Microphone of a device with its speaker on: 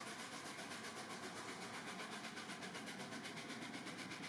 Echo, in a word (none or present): none